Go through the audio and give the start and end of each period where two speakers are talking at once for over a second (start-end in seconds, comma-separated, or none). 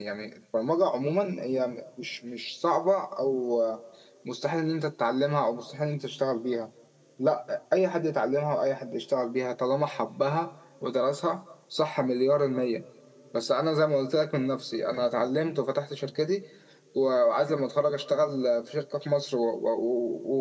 none